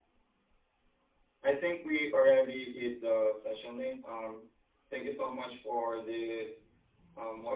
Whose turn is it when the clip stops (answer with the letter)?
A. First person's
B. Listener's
A